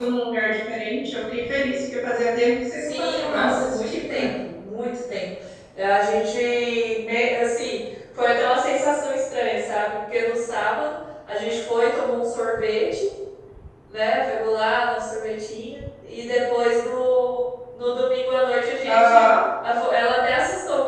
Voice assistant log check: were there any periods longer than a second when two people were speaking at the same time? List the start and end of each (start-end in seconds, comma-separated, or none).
2.8-4.3